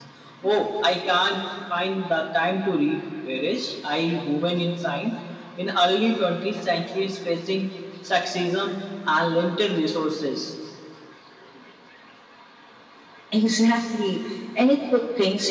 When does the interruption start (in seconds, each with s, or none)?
none